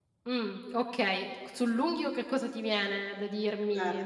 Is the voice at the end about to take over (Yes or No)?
Yes